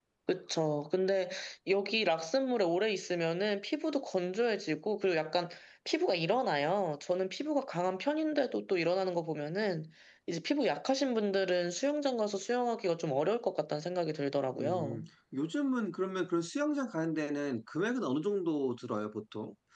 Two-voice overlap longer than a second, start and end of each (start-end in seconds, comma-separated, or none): none